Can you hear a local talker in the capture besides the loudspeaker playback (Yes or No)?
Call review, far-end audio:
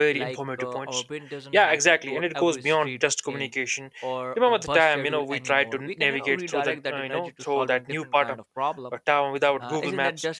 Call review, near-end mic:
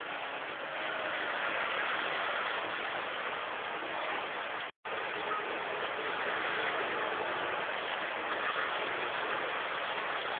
No